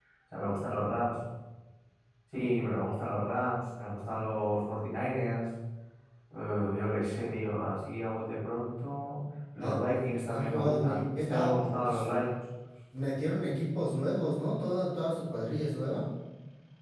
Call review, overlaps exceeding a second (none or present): present